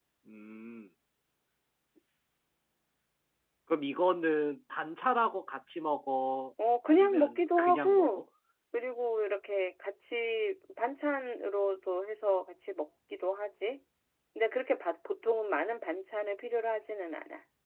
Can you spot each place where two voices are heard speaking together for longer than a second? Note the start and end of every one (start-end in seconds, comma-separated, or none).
6.9-8.2